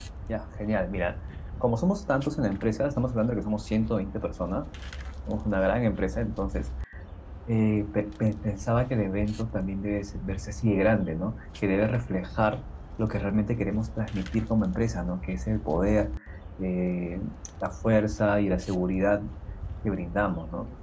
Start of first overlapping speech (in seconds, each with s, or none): none